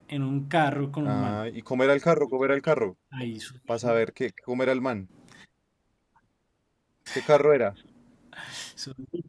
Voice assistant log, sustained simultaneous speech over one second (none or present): none